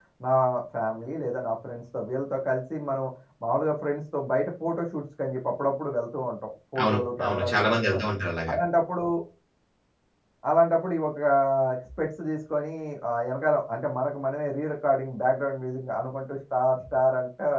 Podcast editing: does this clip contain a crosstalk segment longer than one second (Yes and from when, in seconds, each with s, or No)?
Yes, from 6.8 s